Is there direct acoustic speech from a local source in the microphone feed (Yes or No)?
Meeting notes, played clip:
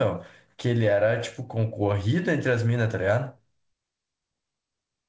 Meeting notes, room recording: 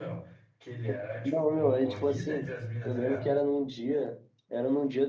Yes